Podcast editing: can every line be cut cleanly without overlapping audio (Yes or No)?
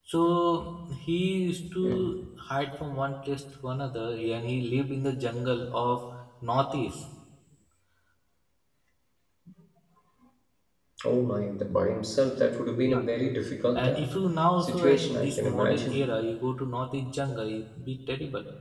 No